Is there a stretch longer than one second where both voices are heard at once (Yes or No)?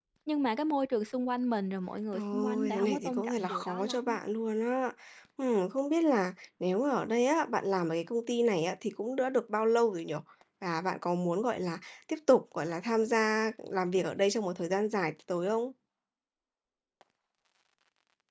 Yes